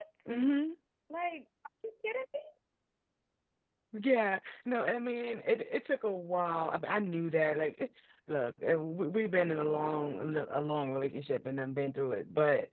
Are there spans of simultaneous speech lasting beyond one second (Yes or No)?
No